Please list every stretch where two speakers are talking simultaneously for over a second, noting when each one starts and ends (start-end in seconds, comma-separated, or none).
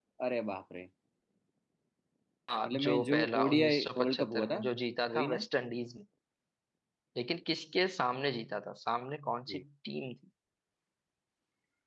2.6-4.6